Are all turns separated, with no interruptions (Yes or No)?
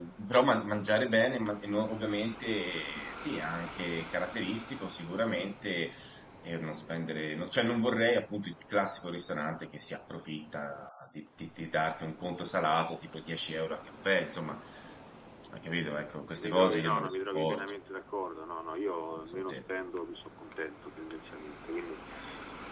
No